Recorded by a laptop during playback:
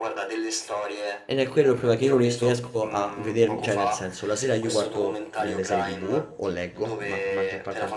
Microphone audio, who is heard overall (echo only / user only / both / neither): both